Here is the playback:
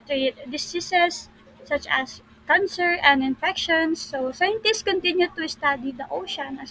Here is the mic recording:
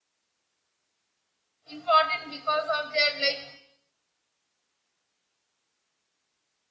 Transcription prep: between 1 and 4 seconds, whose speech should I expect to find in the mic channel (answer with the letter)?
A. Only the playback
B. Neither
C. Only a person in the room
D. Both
C